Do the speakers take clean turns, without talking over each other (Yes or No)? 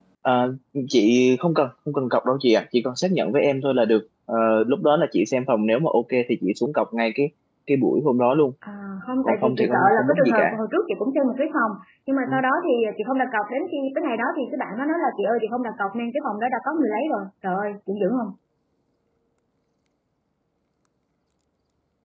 No